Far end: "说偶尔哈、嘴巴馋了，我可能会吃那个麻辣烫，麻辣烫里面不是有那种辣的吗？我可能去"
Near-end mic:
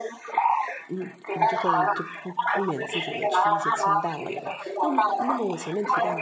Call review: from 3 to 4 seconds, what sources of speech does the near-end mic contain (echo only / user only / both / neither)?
both